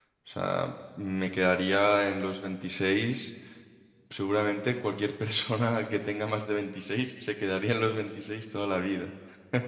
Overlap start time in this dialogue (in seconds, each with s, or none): none